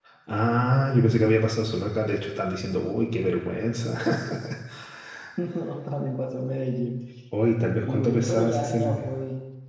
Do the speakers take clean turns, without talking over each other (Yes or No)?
No